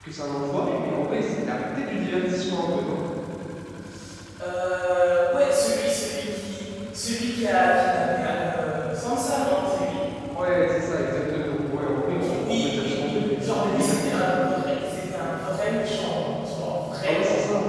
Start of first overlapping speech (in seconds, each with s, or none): 12.1 s